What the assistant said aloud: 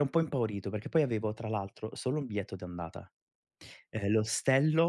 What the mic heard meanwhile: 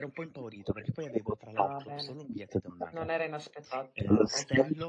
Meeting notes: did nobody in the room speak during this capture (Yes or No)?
No